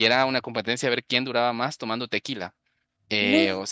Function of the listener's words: listening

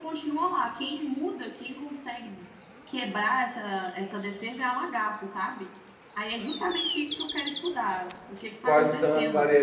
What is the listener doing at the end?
taking over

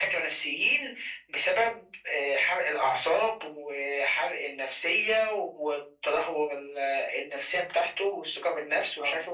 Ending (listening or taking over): listening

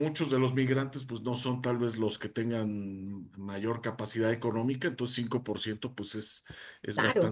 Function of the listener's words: listening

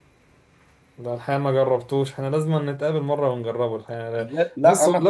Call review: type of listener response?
taking over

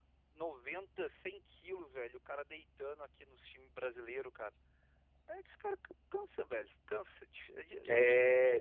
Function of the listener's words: taking over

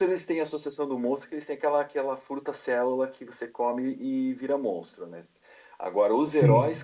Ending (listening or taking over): listening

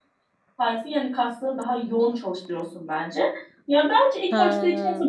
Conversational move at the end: listening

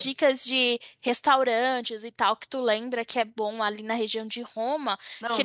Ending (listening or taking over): listening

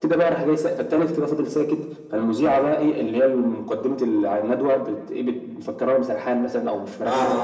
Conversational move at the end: listening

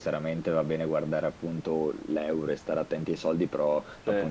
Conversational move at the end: listening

